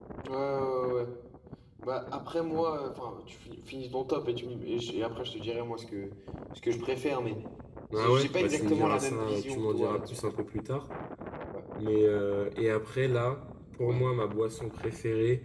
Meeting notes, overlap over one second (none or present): present